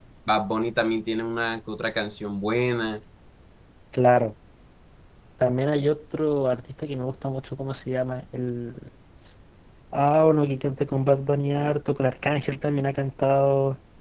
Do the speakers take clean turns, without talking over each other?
Yes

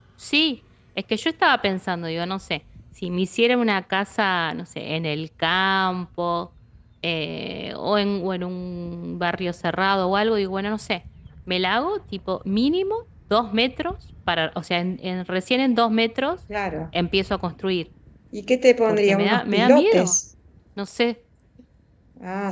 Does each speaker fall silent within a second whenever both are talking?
No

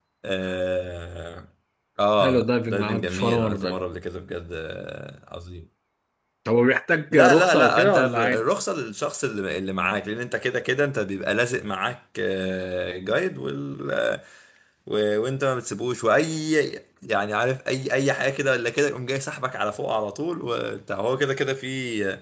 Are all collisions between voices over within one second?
No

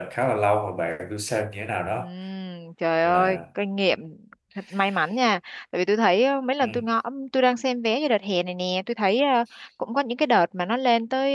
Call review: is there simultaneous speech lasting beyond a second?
No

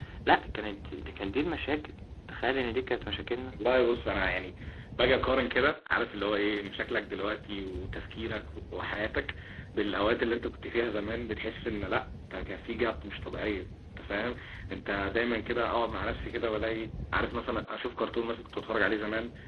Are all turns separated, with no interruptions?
Yes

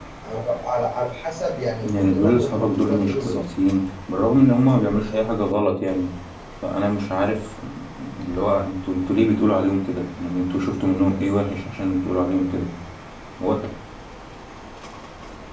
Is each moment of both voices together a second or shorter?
No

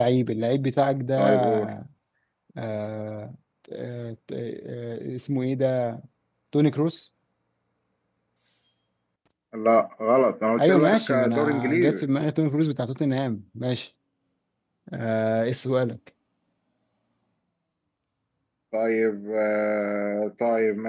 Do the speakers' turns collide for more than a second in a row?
Yes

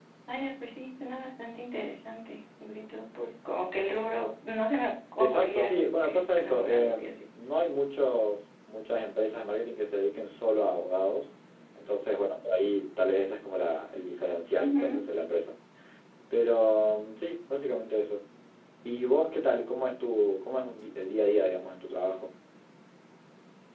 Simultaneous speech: Yes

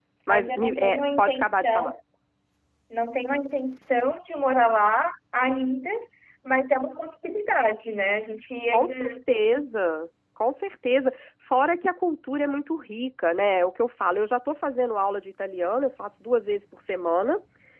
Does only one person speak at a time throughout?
No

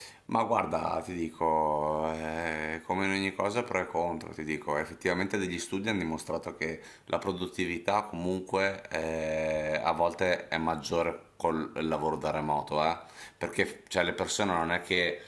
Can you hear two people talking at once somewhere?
No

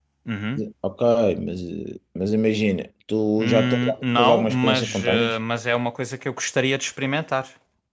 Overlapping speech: Yes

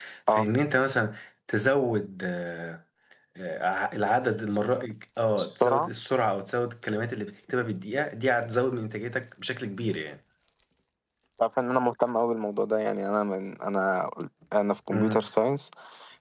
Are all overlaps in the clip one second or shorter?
Yes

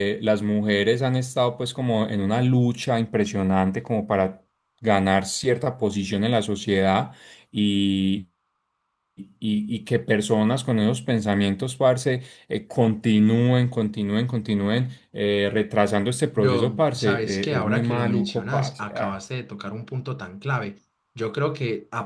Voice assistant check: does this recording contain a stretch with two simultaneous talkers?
Yes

